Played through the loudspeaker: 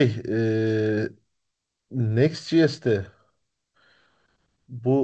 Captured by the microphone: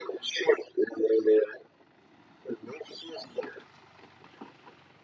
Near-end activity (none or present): none